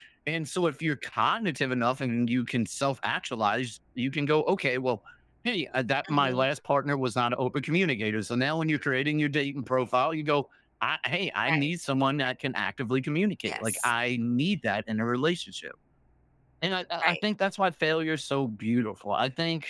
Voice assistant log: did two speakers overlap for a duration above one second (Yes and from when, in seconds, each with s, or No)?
No